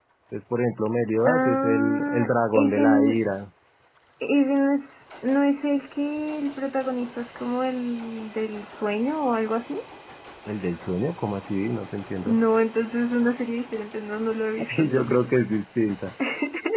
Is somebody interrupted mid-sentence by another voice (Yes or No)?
Yes